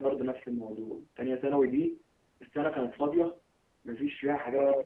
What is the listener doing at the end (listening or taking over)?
listening